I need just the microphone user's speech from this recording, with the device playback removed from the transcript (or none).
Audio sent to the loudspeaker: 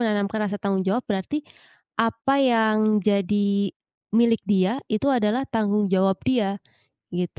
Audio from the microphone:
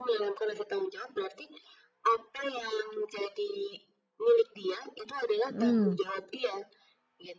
Mhm.